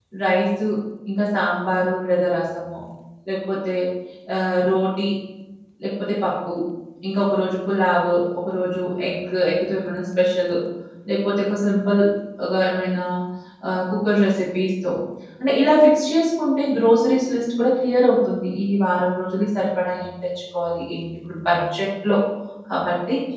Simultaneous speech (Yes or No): No